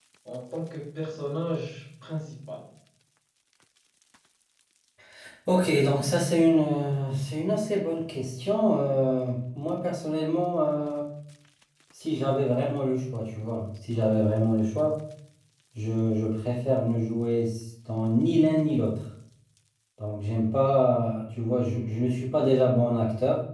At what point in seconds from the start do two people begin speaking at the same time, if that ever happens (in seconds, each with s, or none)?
none